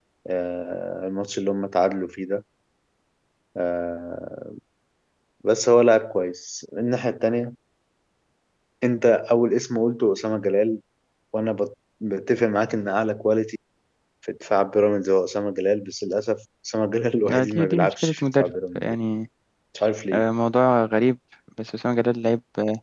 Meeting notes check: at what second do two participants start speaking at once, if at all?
17.3 s

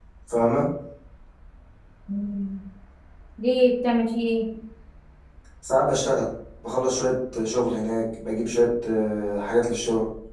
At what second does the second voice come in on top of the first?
none

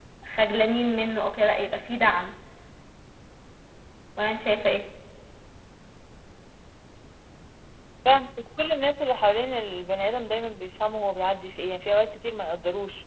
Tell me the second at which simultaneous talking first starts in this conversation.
none

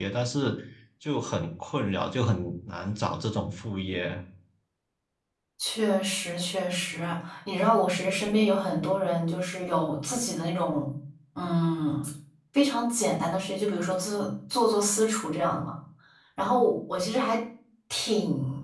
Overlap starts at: none

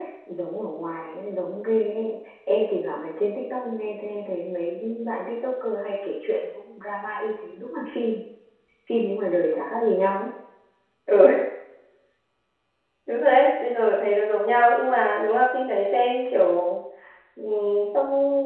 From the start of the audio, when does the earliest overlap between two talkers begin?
none

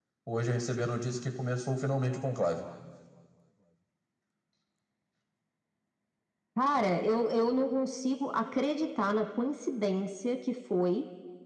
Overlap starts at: none

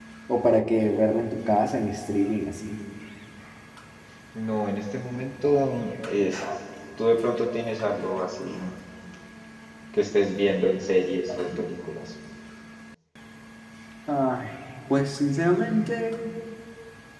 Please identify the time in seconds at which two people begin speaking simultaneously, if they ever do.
none

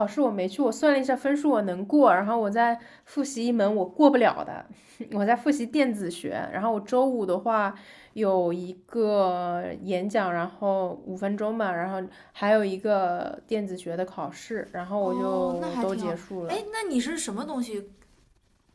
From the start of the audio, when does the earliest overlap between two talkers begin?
15.0 s

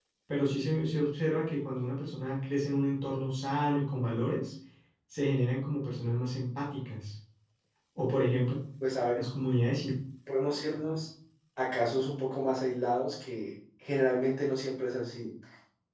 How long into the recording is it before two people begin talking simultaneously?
none

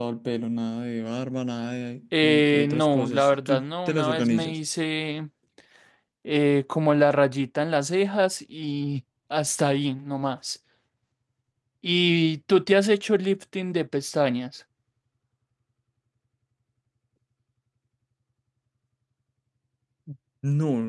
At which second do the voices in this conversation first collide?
2.1 s

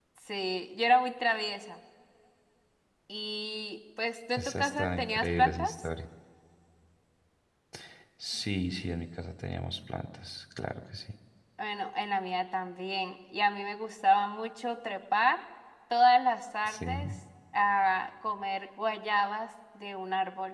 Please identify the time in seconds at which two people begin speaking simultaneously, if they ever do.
4.4 s

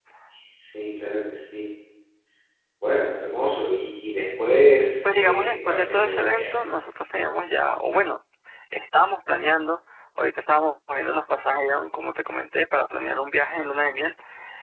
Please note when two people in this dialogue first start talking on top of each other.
5.0 s

